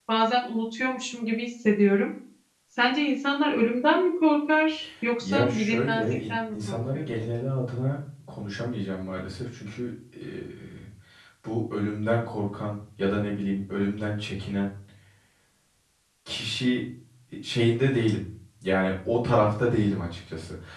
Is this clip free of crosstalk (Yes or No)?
No